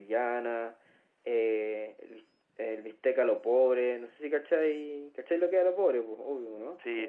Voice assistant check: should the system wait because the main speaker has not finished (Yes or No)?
No